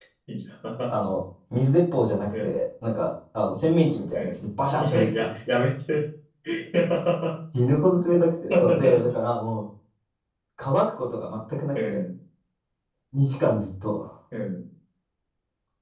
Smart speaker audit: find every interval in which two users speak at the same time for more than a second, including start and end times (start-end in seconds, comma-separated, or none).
none